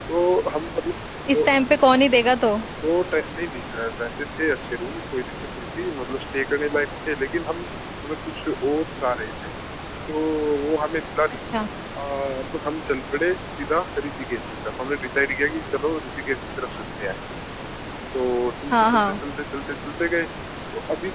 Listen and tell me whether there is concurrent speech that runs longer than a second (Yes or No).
No